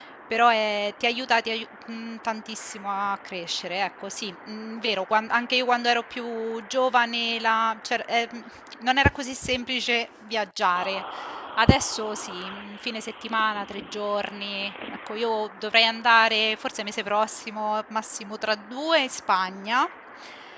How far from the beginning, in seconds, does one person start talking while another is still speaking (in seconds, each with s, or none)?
none